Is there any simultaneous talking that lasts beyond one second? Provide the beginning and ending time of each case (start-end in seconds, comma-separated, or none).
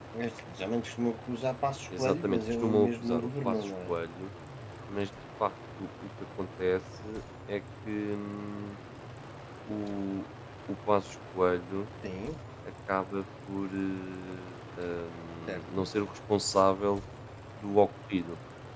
2.0-3.9